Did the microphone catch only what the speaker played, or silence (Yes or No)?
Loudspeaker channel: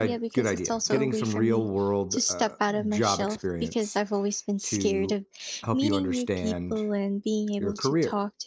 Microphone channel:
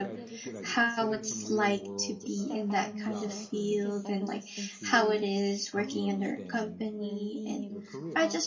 No